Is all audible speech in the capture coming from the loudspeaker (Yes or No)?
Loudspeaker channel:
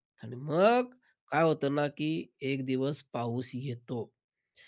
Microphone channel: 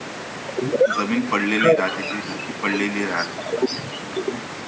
No